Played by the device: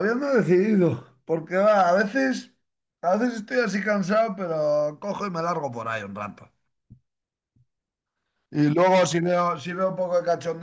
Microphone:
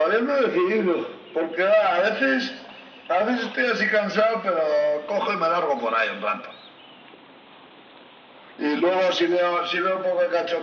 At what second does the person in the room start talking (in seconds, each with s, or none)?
none